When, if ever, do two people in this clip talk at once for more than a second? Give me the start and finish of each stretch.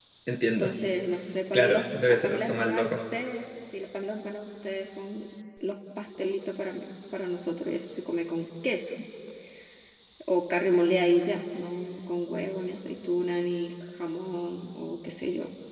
1.5-2.9

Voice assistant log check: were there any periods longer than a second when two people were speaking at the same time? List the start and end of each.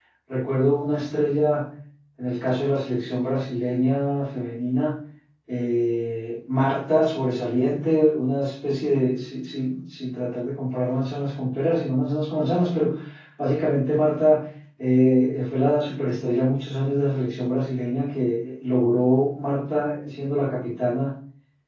none

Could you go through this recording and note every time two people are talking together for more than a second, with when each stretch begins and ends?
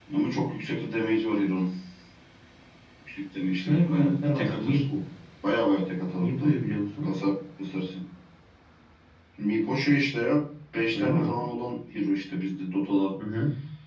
3.6-4.8

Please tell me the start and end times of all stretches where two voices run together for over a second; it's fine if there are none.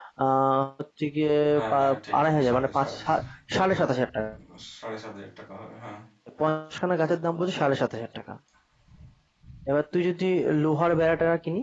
1.5-3.0

